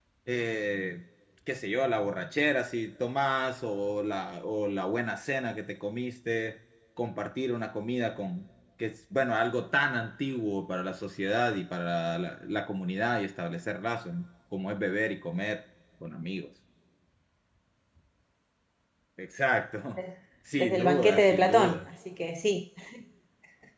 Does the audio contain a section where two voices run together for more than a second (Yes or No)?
Yes